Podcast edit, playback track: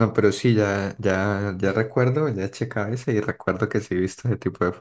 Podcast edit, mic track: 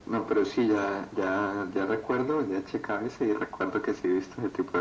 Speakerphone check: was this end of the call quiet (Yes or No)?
Yes